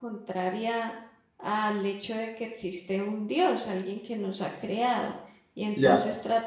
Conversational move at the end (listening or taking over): listening